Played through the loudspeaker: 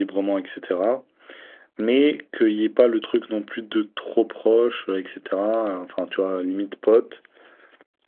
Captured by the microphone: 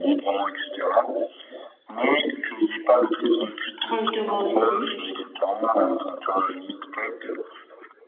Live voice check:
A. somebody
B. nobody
A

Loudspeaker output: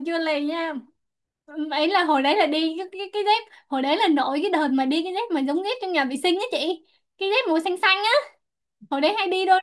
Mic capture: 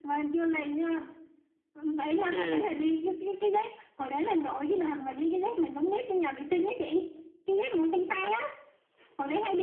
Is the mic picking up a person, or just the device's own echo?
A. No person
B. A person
B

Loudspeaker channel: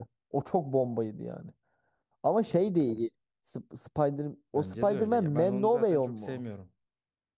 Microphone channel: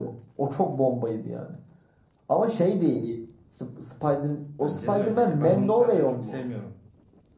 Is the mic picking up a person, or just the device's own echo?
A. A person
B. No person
B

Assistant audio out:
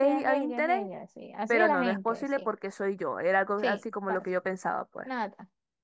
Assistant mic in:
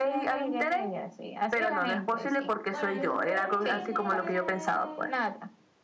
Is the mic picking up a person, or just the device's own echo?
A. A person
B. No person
A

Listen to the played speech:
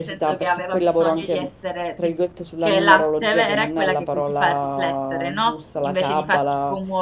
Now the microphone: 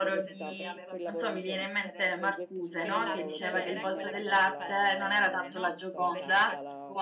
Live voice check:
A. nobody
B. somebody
B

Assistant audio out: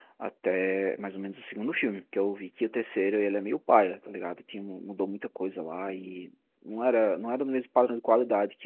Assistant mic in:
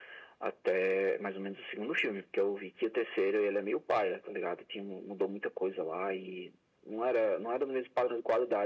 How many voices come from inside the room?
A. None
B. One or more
A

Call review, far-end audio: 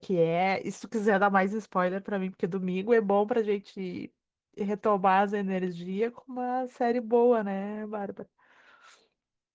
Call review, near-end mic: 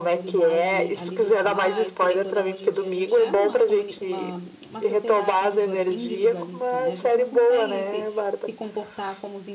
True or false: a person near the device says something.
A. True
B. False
A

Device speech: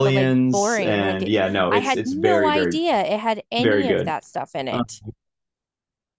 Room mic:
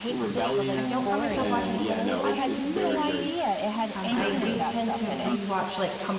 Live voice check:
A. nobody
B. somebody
B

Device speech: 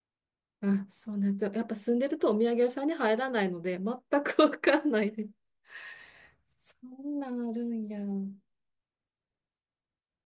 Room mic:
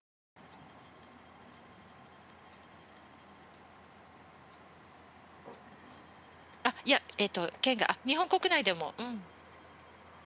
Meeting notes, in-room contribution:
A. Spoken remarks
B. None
A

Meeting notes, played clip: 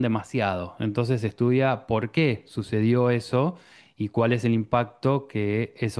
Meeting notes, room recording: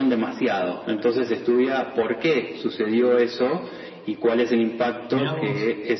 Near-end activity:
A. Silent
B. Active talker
B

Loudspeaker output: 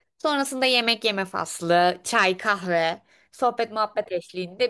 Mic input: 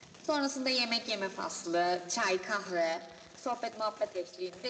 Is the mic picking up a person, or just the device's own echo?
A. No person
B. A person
A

